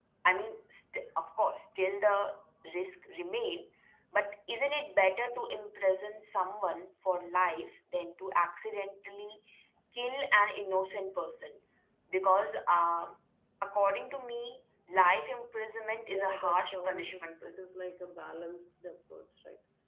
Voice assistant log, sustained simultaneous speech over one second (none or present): present